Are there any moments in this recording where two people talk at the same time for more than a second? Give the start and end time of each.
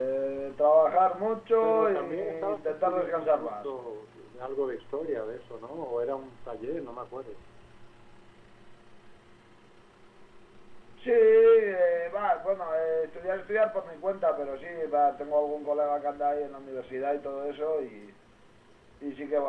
1.6-3.7

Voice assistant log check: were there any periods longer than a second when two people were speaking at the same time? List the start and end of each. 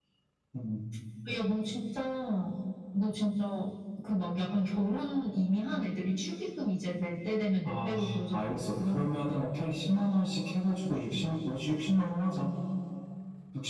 7.6-9.2

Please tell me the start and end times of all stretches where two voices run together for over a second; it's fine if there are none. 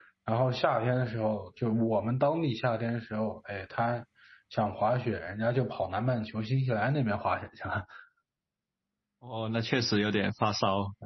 none

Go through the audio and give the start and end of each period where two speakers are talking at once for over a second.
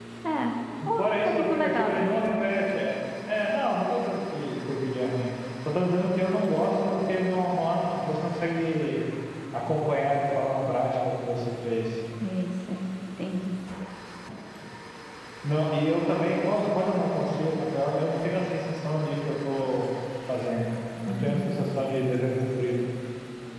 1.0-2.3

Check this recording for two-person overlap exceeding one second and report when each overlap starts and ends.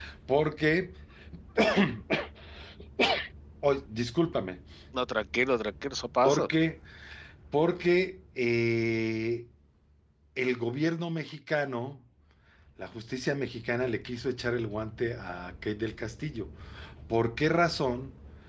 none

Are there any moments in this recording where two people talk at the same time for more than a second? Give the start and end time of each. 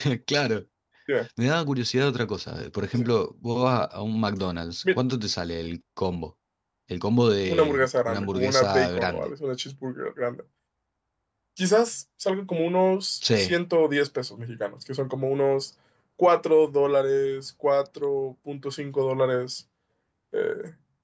7.5-9.3

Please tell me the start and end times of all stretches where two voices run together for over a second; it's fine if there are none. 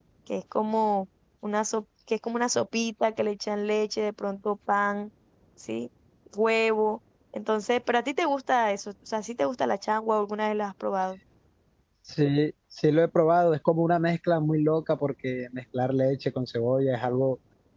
none

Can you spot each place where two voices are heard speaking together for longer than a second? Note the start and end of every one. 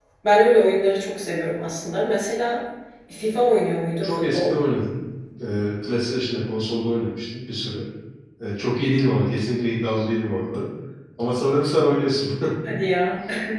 none

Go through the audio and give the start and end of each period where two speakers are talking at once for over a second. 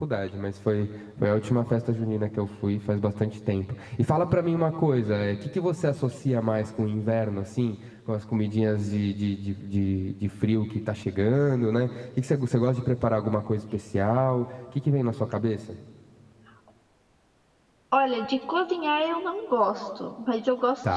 none

